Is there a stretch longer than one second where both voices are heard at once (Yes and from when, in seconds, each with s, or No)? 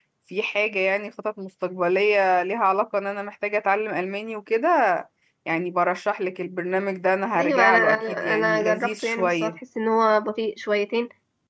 Yes, from 7.3 s